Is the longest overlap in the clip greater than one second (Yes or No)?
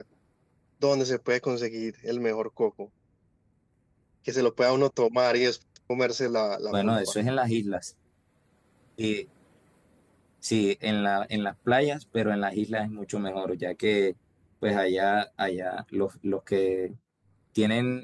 No